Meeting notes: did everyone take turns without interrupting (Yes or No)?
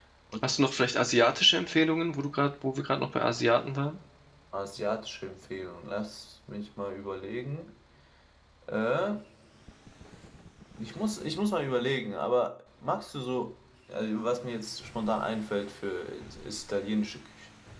Yes